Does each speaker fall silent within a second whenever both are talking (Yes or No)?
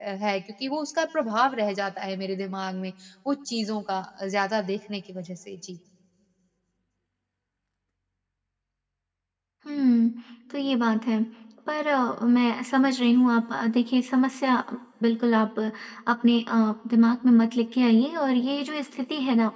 Yes